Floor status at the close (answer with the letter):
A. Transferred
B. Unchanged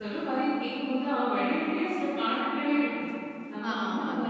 B